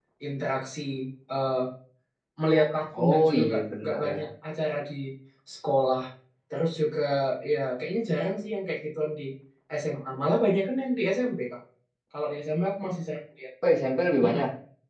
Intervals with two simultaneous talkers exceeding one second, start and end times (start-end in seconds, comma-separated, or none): 3.0-4.3